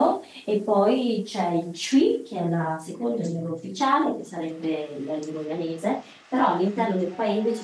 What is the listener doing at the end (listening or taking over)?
listening